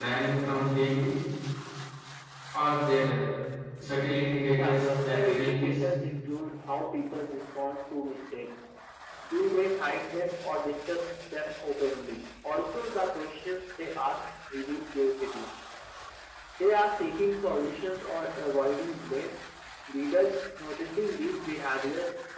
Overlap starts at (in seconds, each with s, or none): 4.6 s